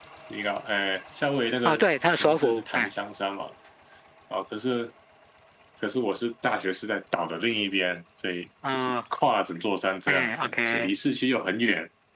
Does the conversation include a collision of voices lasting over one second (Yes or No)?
Yes